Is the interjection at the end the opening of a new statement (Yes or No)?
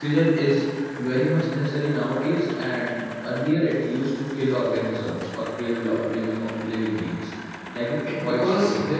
Yes